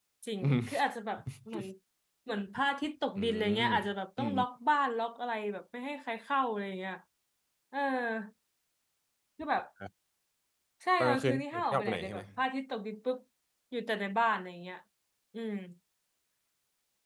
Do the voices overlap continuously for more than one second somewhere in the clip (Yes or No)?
Yes